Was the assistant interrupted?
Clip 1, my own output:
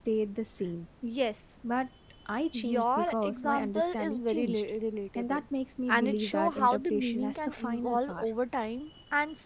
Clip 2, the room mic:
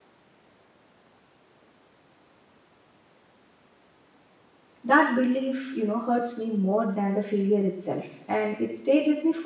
Yes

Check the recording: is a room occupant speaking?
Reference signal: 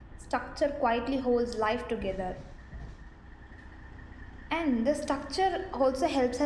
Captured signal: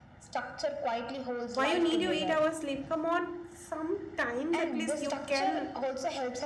Yes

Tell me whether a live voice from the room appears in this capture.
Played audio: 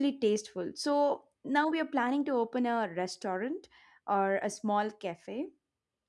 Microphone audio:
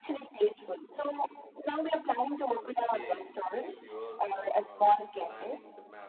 Yes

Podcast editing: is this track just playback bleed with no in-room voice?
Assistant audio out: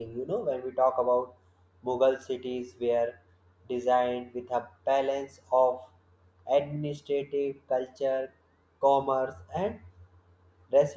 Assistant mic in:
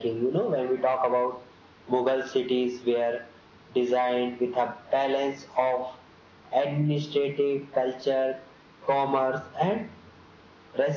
Yes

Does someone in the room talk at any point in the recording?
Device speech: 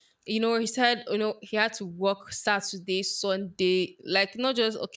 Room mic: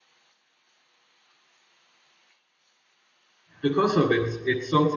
Yes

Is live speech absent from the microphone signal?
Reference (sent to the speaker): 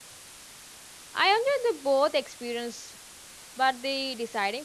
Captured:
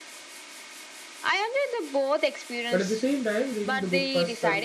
No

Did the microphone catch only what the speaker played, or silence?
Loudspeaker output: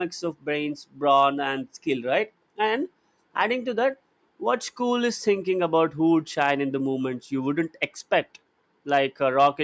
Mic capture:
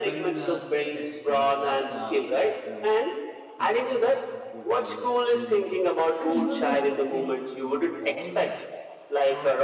No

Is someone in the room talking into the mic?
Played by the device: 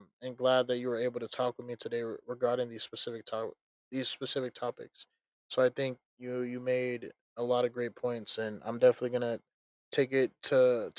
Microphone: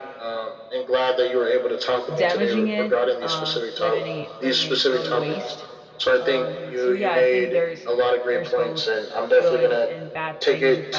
Yes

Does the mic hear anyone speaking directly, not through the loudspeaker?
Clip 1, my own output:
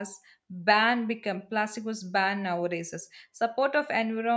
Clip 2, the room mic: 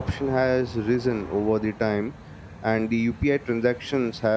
Yes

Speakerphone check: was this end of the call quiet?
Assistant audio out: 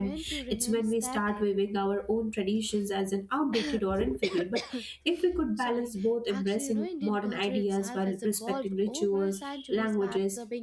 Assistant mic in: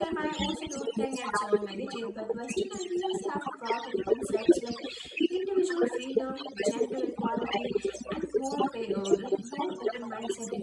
No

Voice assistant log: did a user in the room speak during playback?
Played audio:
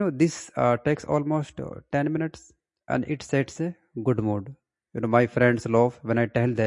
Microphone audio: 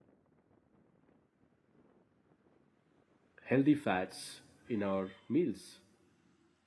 Yes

